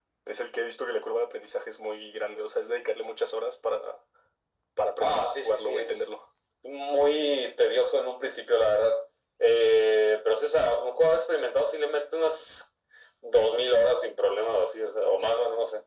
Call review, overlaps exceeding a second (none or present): present